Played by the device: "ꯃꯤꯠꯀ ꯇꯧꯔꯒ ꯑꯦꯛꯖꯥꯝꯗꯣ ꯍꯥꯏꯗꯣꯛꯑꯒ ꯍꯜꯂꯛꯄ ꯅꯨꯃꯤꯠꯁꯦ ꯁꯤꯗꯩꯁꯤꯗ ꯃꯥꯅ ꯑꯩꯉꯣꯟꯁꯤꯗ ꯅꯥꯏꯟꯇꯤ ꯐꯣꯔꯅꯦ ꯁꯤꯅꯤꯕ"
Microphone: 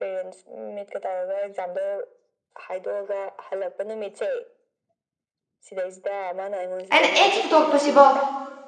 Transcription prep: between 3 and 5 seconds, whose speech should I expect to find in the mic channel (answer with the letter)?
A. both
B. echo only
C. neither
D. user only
B